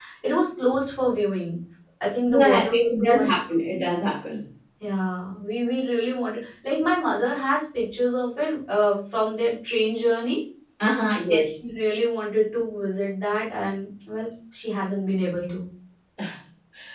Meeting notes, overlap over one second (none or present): present